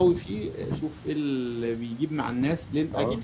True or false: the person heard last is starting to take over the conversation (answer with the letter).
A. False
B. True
A